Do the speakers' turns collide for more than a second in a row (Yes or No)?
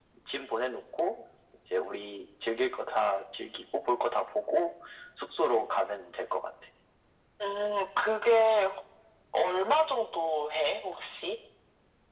No